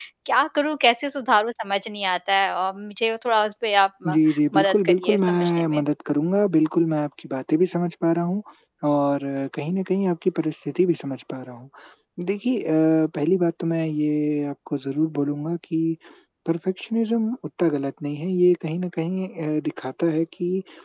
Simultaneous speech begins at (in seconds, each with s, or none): 4.6 s